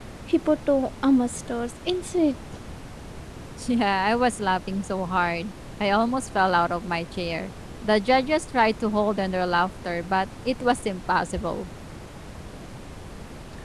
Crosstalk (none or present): none